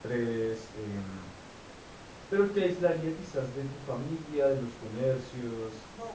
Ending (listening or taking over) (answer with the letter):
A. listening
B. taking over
B